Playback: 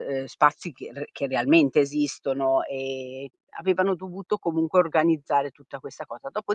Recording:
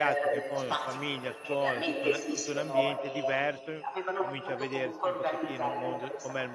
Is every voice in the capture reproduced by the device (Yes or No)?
No